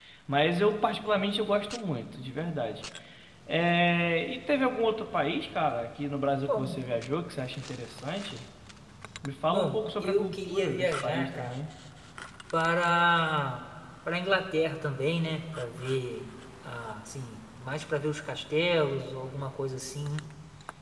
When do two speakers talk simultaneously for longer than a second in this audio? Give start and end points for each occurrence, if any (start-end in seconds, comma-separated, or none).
9.5-11.6